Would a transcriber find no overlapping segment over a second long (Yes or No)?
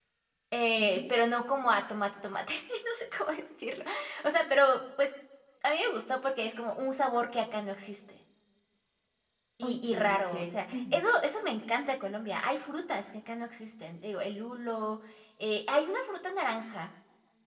No